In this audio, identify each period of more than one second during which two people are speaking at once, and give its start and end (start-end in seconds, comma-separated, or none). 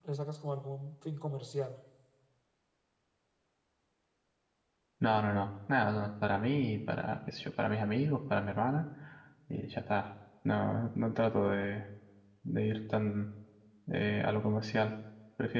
none